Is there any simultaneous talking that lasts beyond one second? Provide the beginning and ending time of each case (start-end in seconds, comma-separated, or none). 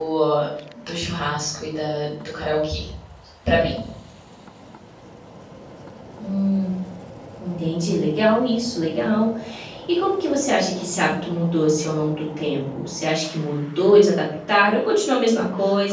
none